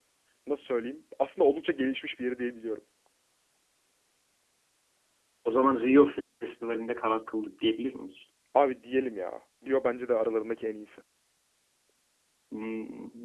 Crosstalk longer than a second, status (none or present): none